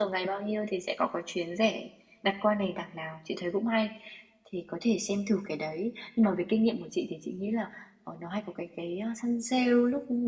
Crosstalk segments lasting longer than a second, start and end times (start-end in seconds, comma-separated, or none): none